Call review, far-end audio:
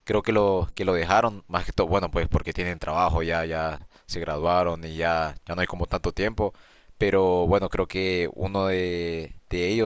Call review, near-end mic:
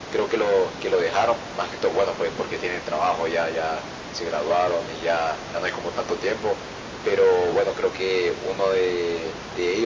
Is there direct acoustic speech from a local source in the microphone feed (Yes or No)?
No